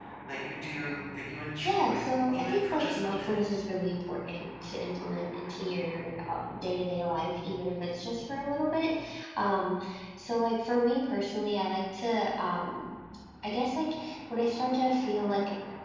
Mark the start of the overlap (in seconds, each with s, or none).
1.6 s